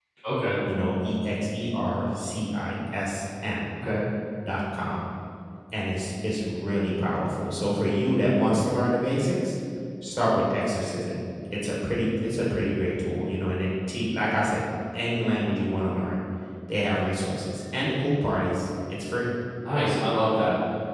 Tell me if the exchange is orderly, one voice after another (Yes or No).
Yes